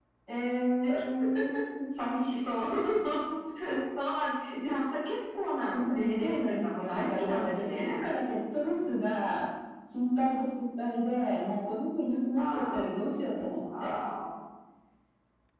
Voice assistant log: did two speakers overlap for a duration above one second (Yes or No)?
Yes